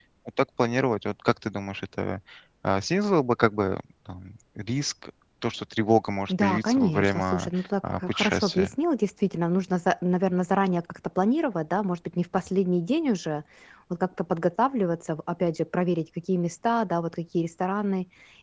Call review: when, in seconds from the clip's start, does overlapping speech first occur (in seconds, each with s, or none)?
6.3 s